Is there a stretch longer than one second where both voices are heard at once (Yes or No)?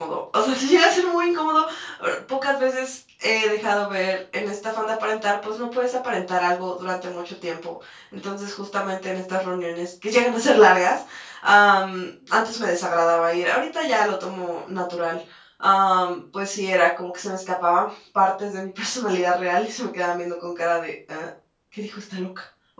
No